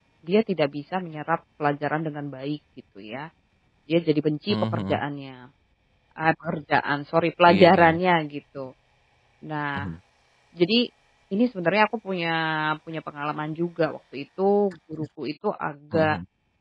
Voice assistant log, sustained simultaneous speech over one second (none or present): none